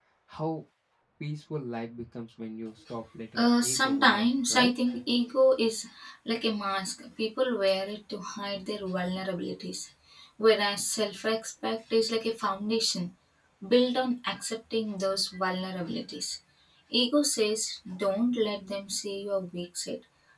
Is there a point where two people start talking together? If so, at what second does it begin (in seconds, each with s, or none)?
3.4 s